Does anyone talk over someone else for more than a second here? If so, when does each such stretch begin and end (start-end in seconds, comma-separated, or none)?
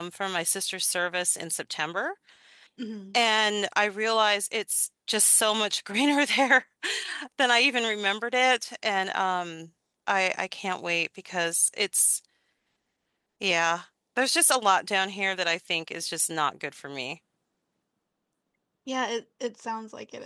none